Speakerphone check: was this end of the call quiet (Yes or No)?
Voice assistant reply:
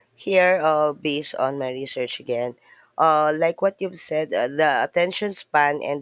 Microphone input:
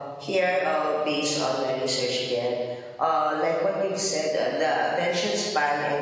Yes